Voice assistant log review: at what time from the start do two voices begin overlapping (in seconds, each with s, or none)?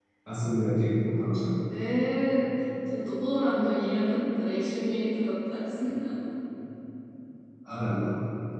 none